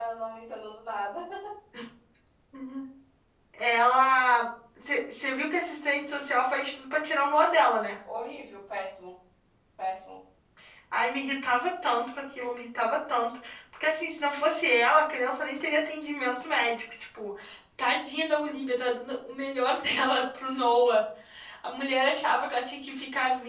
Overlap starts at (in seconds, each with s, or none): none